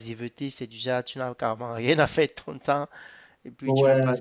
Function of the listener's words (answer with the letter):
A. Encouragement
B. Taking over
A